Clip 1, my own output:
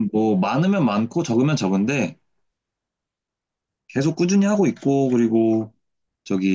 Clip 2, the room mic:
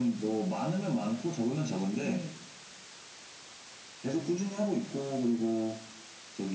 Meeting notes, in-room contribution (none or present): present